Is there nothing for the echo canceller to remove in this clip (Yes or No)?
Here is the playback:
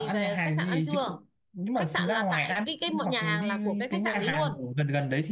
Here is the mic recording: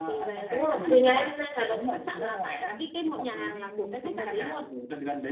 No